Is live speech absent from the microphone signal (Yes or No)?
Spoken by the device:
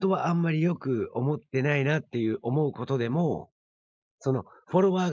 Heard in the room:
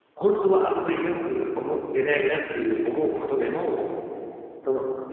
Yes